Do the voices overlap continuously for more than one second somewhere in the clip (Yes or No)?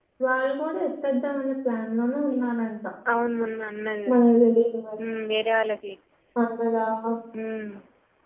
No